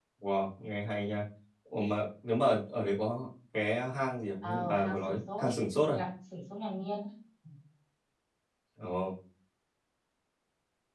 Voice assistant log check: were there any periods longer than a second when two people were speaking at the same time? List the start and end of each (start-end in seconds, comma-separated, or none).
4.4-6.0